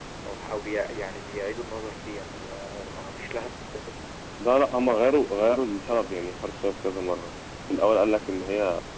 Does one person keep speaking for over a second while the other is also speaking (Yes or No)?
No